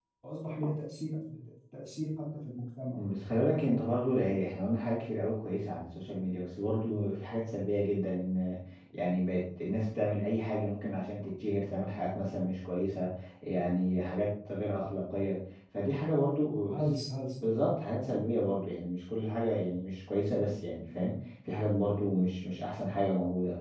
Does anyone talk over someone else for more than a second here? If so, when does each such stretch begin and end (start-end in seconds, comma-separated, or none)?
none